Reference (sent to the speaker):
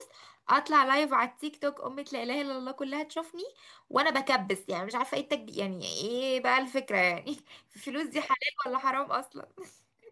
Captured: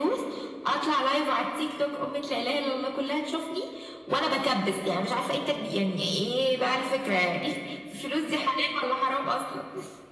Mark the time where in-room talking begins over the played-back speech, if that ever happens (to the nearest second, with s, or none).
none